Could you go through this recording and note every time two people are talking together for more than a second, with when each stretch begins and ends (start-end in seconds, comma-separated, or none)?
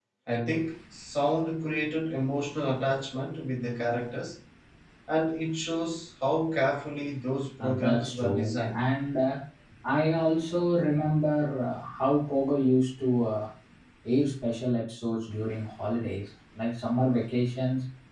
7.6-8.8